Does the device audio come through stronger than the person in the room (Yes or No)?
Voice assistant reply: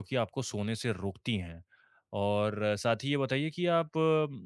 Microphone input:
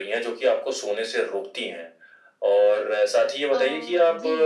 Yes